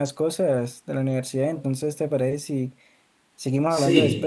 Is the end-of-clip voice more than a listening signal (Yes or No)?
Yes